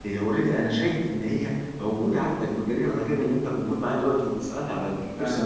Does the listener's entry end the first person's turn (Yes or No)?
Yes